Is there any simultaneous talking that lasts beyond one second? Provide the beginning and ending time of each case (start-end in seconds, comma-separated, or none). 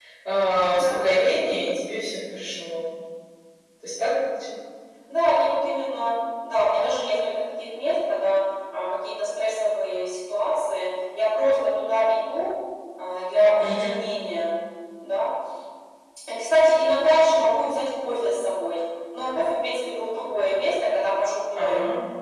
none